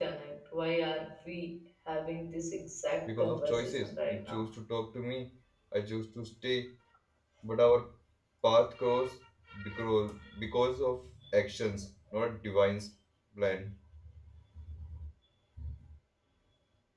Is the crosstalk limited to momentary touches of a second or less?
No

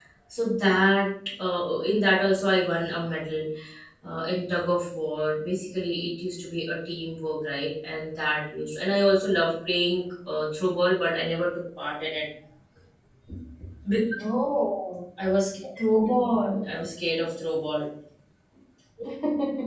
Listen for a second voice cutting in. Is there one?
No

